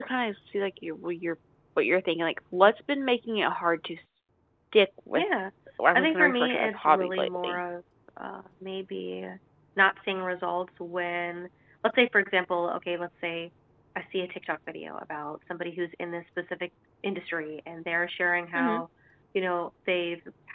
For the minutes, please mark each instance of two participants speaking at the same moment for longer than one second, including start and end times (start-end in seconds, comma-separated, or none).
6.0-7.6